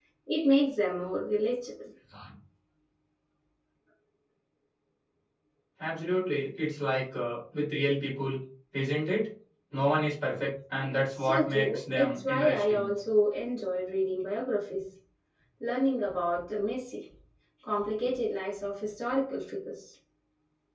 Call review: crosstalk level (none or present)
present